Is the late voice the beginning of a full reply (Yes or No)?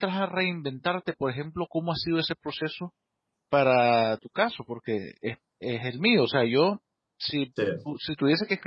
No